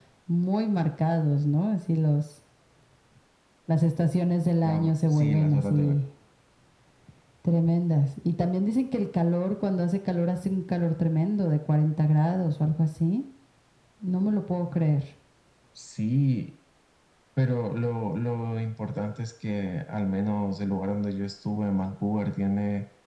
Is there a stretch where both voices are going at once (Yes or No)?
Yes